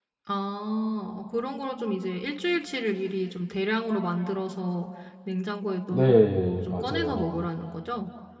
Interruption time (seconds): 5.9 s

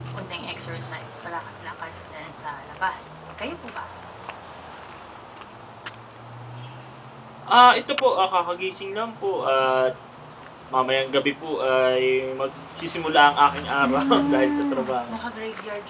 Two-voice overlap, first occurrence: 13.8 s

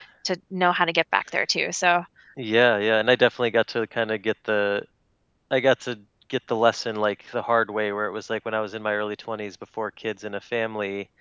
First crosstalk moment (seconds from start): none

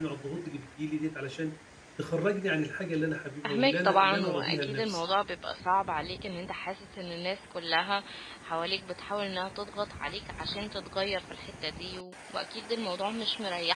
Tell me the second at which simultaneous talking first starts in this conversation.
3.4 s

